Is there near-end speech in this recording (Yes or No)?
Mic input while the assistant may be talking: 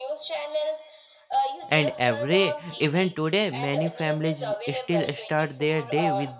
Yes